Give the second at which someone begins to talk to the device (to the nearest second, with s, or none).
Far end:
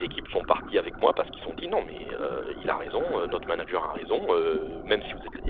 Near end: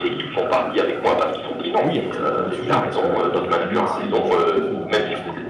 2 s